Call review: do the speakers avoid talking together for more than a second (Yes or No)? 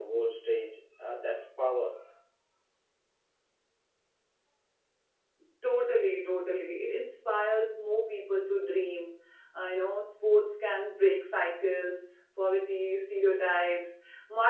Yes